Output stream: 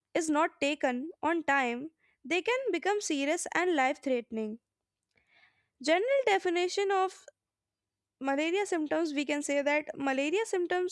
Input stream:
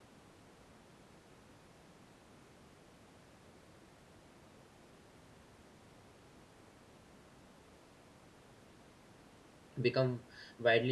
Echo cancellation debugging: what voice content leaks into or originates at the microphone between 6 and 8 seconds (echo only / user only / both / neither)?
neither